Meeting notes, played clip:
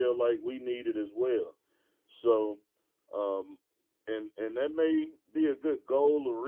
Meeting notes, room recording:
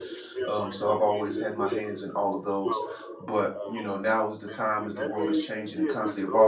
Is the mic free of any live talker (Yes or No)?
No